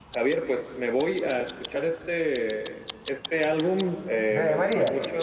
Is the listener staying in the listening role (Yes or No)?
Yes